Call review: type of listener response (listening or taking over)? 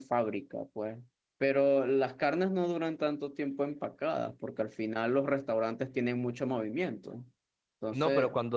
taking over